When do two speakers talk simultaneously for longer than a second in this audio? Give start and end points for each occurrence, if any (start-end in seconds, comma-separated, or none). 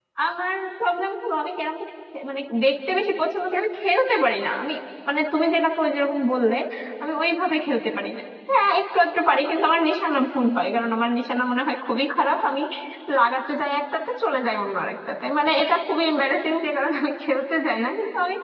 none